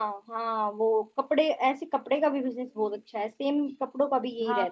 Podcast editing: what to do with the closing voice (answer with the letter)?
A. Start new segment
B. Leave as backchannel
A